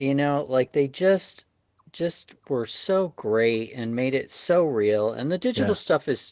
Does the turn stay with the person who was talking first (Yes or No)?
Yes